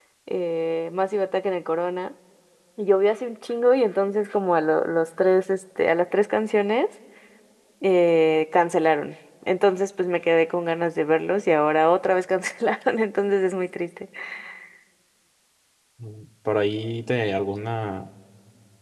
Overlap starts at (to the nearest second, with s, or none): none